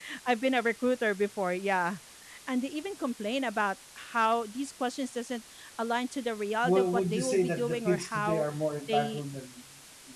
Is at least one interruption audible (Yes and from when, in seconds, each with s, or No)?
Yes, from 6.6 s